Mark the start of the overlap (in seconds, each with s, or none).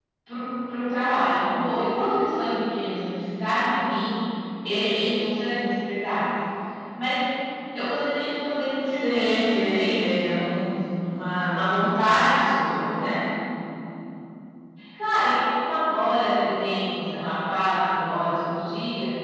8.9 s